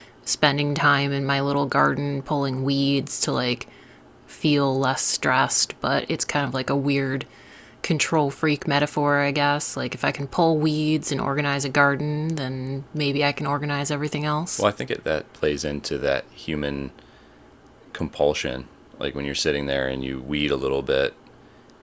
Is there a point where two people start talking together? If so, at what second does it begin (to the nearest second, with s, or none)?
none